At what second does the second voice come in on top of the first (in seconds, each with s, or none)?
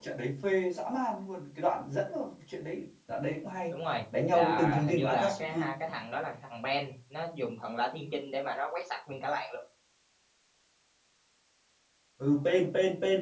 4.3 s